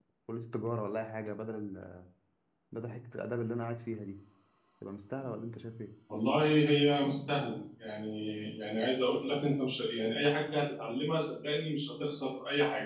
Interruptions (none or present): none